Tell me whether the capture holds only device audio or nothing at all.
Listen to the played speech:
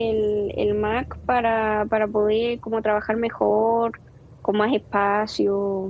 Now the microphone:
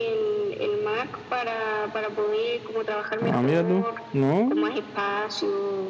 No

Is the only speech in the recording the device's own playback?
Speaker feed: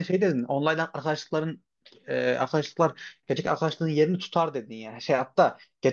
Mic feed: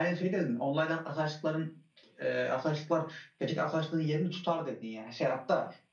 Yes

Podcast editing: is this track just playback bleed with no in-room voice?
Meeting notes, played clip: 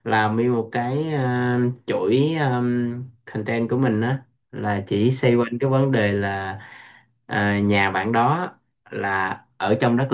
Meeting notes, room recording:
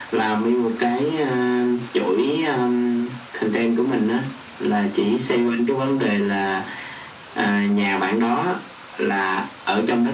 Yes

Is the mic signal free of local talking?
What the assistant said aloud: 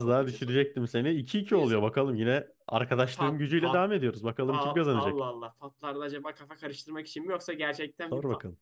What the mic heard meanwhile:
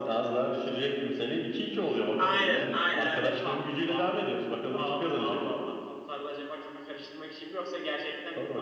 No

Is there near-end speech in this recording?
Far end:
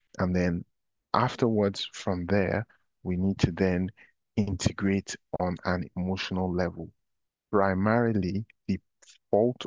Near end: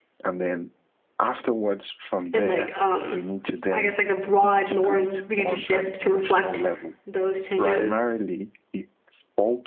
Yes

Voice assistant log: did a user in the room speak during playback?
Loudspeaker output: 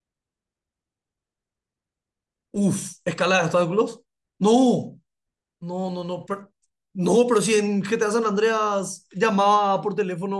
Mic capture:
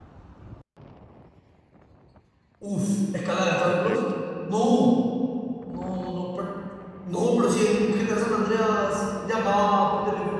Yes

